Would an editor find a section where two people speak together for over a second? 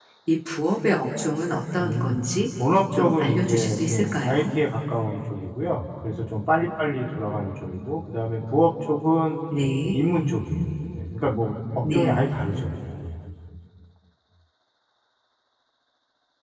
Yes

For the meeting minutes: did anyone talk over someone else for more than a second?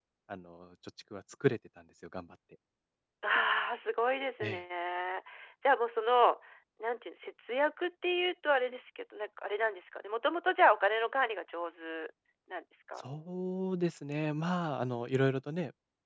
No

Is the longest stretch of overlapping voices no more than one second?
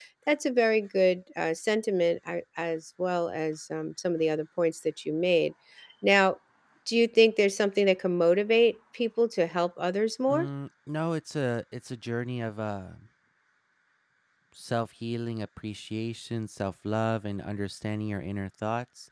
Yes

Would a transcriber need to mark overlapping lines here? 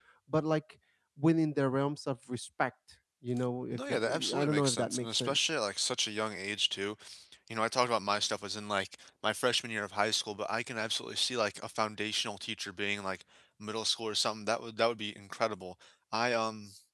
Yes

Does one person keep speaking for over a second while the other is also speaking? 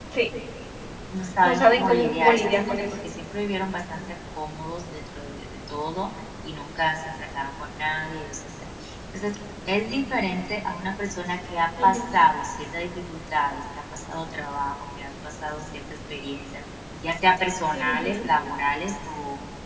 Yes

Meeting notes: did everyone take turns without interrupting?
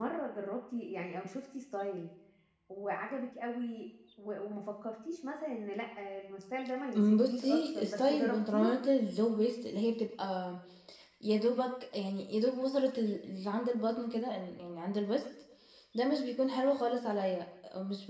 No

